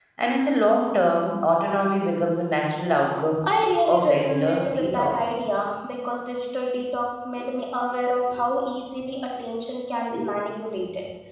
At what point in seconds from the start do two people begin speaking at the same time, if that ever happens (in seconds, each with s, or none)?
3.9 s